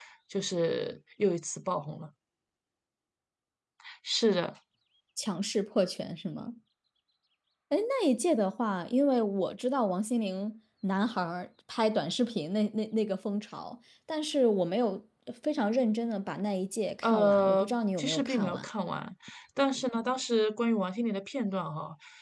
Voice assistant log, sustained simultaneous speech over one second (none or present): present